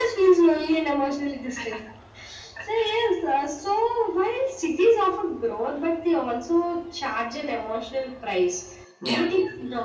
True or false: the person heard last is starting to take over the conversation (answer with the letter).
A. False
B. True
A